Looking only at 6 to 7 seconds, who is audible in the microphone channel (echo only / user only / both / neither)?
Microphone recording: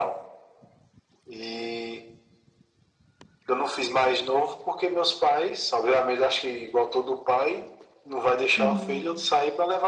echo only